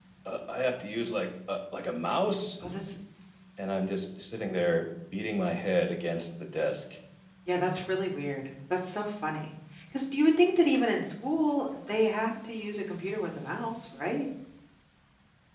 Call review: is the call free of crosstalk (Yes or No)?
Yes